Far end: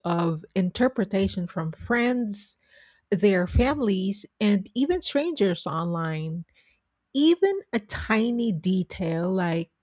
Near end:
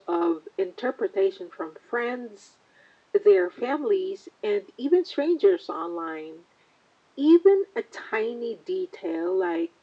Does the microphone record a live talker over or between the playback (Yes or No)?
No